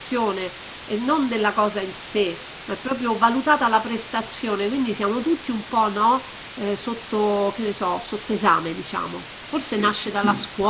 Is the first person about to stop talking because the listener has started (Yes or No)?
No